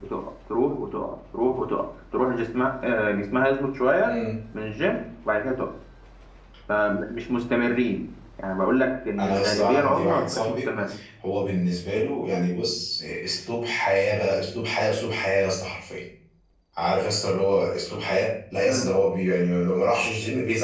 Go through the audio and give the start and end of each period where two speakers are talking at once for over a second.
9.2-10.7

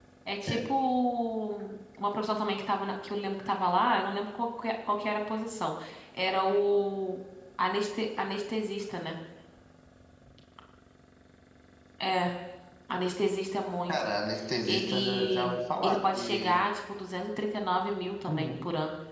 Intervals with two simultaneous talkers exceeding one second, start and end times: 14.7-16.6

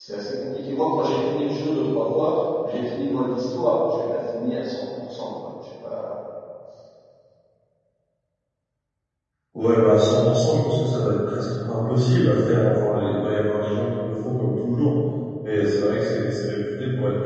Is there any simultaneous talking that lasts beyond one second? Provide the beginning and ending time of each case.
none

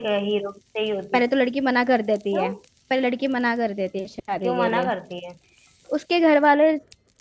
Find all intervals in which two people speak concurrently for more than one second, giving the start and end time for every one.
none

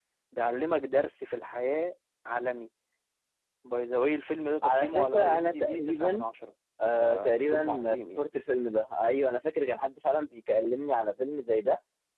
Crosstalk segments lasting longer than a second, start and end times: 4.6-6.2, 7.0-8.3

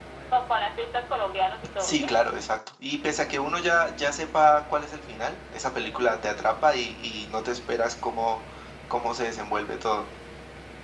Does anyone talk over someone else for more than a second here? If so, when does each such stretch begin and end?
none

